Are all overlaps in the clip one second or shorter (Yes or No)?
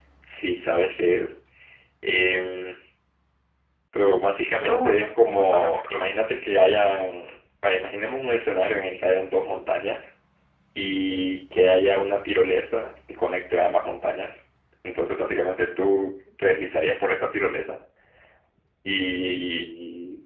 No